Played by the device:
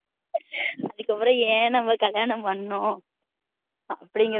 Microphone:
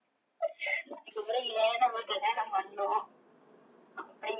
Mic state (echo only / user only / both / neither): echo only